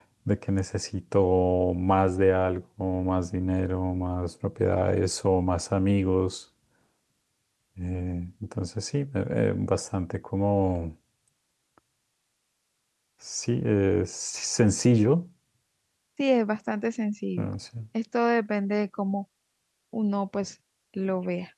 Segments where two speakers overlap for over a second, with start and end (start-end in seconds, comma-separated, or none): none